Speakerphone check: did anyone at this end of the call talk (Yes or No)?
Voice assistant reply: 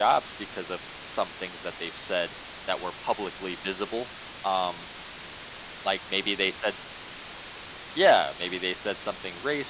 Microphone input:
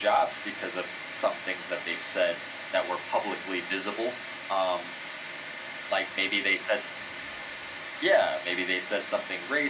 No